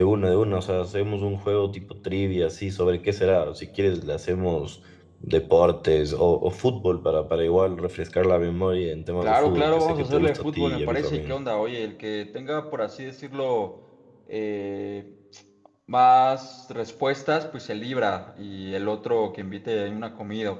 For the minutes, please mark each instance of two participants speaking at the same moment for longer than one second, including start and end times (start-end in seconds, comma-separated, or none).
9.2-11.3